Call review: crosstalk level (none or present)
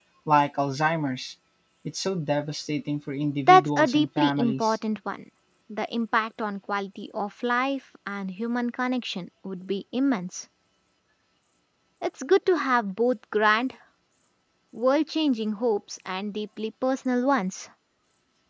present